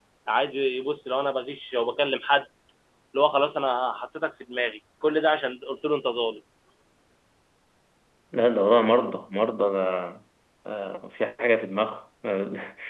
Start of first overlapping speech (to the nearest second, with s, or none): none